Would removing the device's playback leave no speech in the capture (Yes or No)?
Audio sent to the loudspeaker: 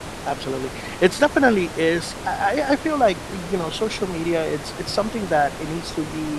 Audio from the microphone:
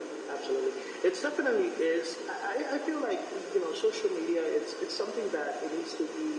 Yes